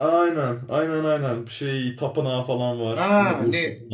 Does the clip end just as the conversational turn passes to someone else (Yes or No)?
Yes